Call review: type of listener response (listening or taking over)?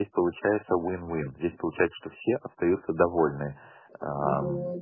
listening